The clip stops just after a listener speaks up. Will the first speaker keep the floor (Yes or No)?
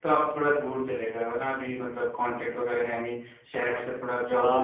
No